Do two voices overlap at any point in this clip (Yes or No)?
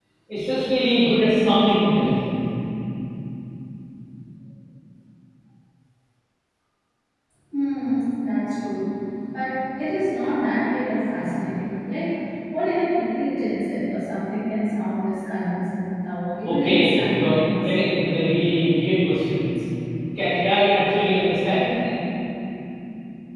Yes